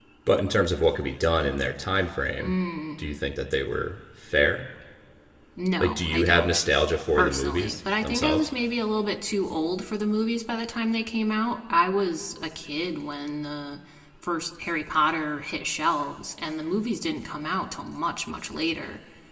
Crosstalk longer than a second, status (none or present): present